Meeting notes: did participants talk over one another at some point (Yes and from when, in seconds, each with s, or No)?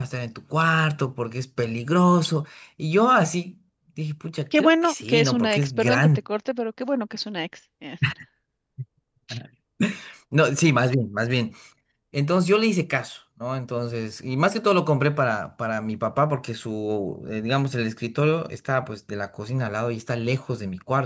Yes, from 4.5 s